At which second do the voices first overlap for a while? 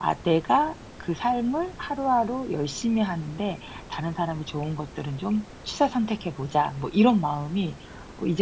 none

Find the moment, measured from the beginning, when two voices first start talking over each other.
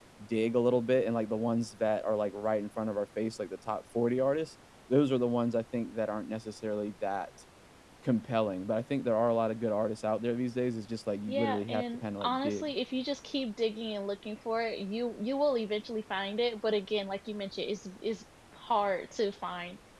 11.3 s

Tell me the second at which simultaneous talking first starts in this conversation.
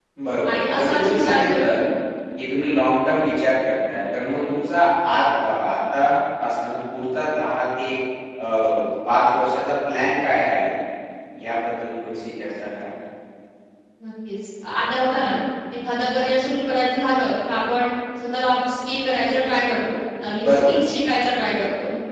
0.5 s

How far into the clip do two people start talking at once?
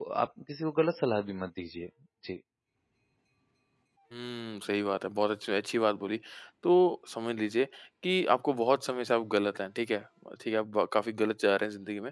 none

